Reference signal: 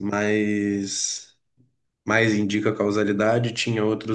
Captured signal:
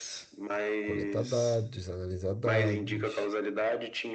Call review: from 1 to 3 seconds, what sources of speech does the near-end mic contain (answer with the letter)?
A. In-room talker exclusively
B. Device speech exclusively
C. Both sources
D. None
C